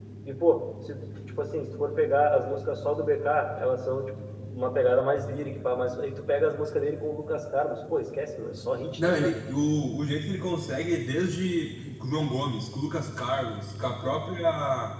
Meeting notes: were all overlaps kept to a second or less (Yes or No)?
Yes